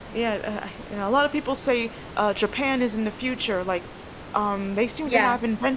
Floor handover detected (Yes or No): No